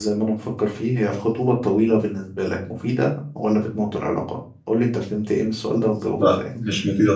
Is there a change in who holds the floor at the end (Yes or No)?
Yes